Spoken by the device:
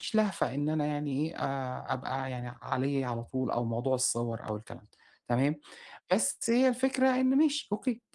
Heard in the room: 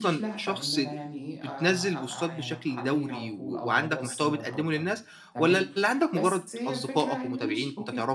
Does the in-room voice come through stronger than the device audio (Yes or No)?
Yes